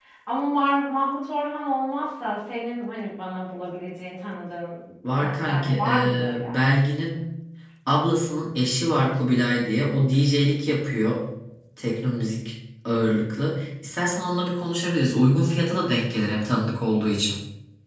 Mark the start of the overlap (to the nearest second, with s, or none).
5 s